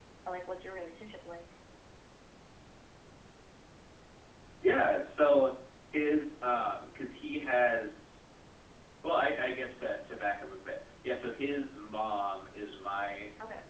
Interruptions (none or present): none